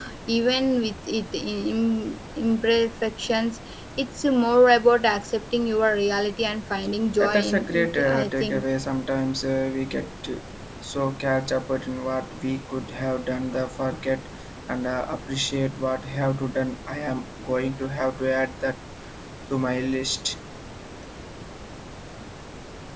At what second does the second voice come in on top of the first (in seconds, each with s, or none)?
7.1 s